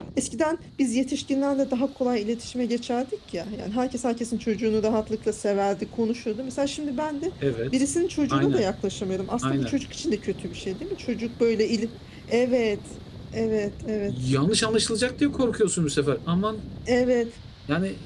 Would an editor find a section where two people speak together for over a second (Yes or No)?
No